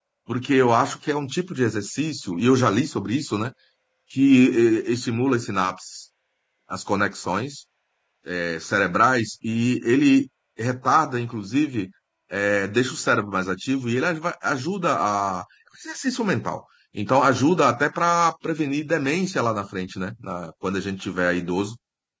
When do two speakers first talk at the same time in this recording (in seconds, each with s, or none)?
none